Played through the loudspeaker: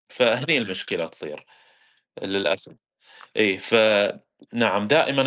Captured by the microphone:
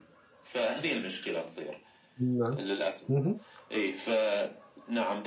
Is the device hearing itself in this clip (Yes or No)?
Yes